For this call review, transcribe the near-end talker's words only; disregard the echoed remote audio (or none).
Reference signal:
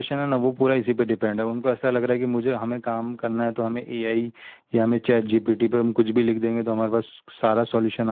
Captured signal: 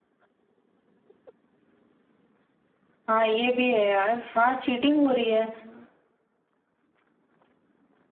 हाँ ये भी है यार हाँ चीटिंग हो रही है